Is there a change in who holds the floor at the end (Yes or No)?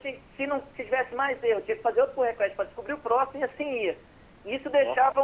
No